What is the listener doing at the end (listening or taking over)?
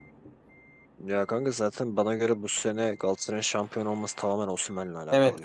taking over